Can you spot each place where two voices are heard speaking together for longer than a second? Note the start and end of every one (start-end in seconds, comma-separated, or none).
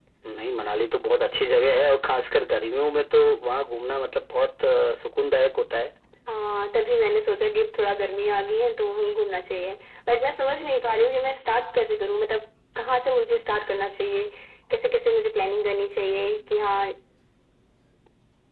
none